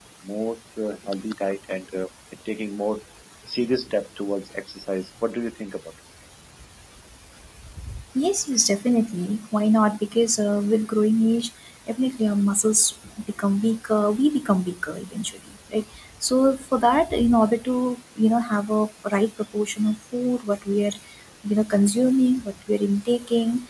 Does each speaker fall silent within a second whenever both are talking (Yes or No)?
Yes